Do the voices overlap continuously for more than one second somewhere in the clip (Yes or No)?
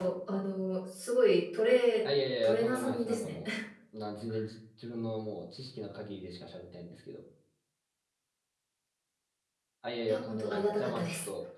Yes